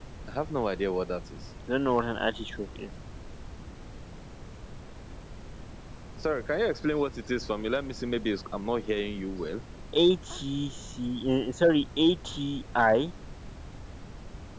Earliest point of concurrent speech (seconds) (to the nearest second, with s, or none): none